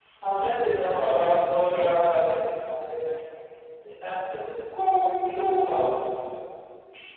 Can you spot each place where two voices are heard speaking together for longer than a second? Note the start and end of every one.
none

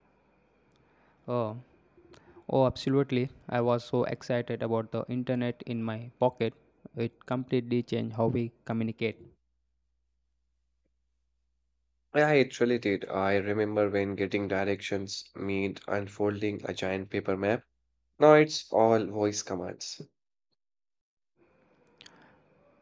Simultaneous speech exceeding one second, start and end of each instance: none

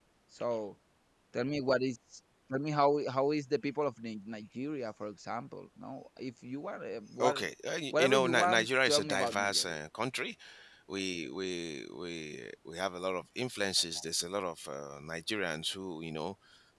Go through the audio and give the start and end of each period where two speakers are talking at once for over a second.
7.9-9.8

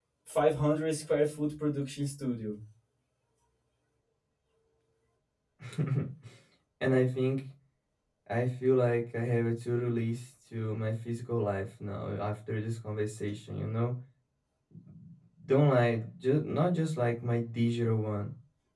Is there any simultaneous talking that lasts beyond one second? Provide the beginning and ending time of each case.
none

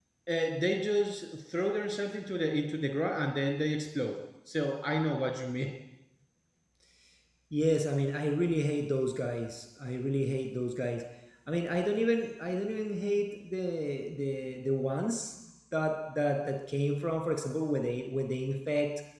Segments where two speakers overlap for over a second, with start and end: none

